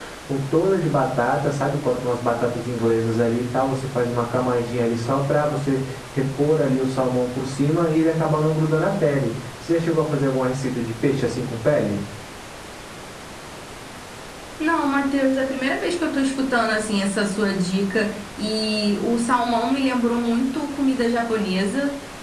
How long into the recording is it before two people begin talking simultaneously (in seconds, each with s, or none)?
none